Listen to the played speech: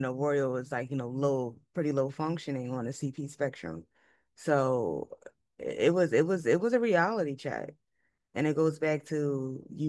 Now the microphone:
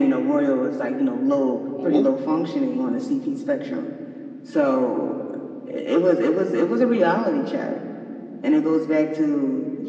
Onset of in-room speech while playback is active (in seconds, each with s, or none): 1.7 s